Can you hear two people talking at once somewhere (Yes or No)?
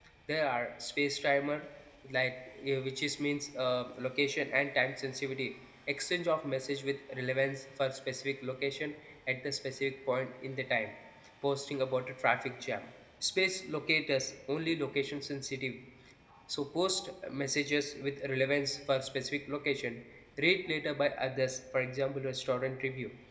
No